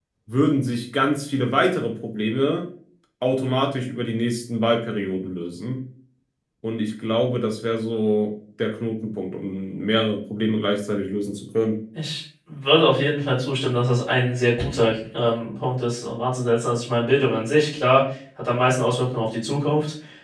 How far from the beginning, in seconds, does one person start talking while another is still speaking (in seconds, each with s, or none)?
none